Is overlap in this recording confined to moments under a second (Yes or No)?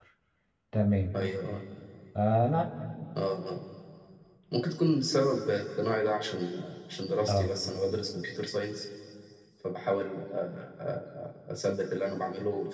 Yes